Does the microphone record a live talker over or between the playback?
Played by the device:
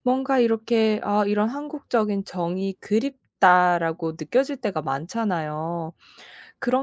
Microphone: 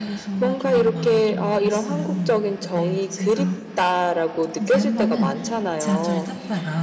Yes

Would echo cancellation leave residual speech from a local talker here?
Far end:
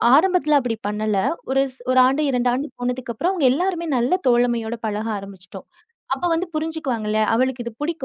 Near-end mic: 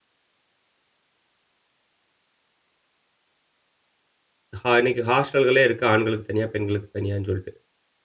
Yes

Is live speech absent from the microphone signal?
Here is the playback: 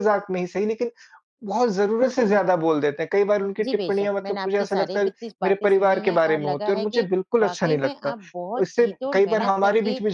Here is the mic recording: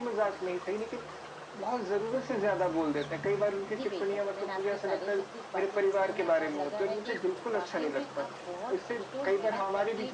Yes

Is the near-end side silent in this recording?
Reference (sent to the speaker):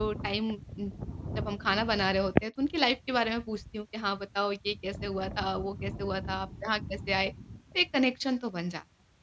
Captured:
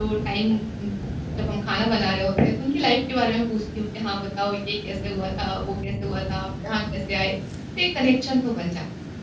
Yes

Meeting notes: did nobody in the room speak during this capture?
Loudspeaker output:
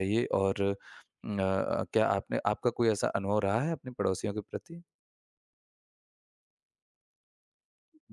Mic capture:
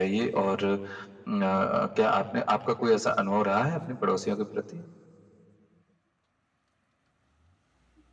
Yes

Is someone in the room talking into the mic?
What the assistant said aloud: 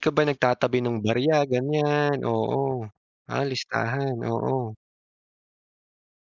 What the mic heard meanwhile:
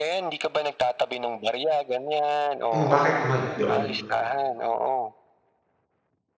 Yes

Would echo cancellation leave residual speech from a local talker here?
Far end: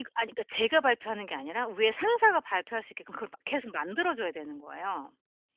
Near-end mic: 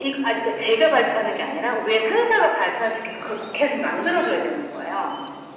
No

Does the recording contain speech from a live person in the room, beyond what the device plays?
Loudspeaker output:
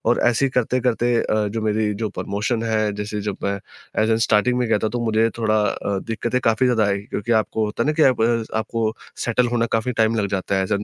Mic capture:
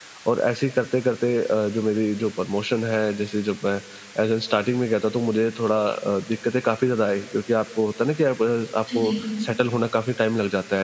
Yes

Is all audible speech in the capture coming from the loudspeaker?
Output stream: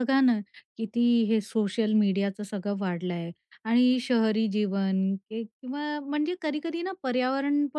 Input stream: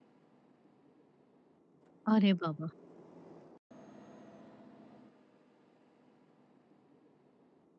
No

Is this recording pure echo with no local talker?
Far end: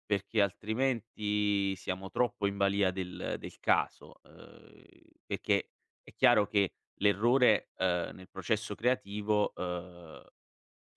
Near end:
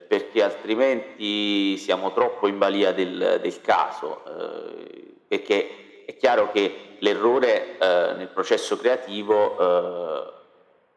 Yes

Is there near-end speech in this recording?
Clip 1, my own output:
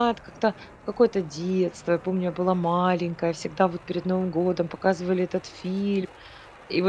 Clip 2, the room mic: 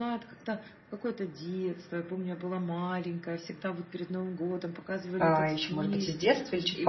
Yes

